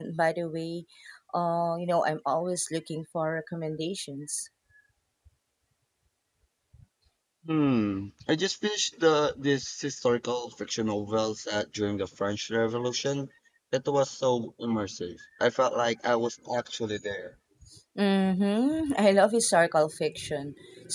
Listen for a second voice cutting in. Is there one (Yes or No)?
No